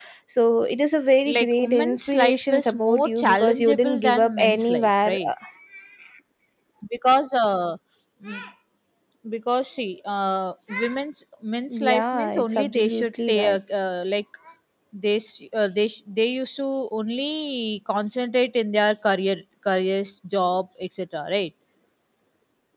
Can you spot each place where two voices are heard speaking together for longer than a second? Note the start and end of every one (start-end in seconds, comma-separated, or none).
1.3-5.3, 11.8-13.6